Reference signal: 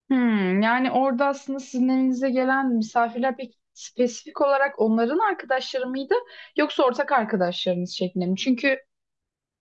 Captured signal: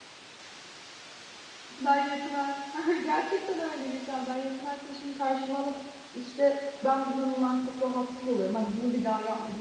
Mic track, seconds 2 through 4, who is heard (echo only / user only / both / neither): user only